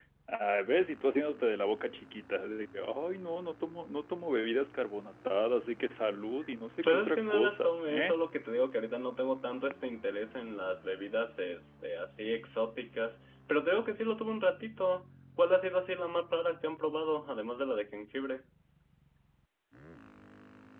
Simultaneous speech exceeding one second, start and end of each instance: 6.8-8.1

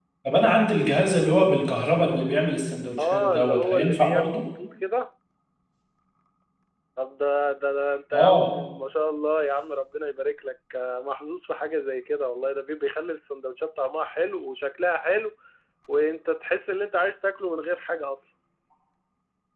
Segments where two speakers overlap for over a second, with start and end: 3.0-4.4

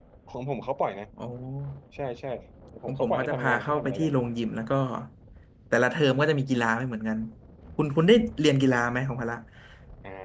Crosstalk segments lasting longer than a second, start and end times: 2.9-4.1

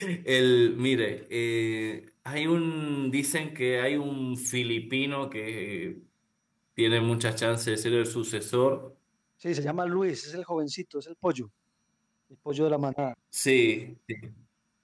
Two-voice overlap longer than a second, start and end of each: none

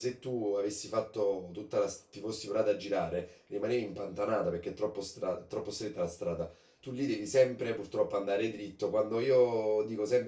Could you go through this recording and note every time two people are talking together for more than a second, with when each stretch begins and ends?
none

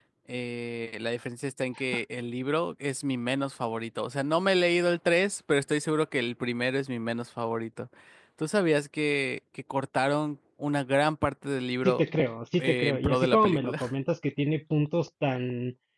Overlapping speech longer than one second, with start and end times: 12.6-13.9

